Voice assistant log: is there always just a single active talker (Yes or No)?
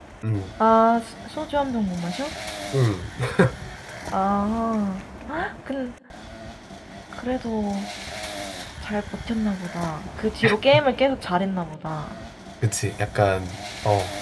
Yes